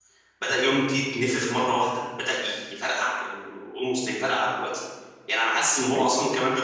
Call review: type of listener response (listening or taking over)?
listening